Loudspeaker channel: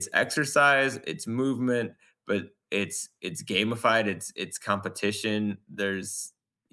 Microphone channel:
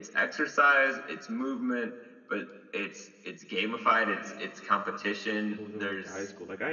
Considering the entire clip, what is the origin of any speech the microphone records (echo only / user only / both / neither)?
both